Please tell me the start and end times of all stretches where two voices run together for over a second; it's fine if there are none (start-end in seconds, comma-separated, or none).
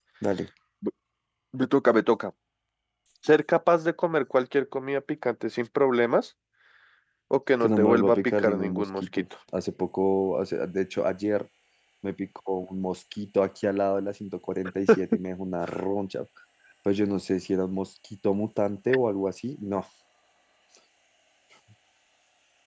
7.6-9.2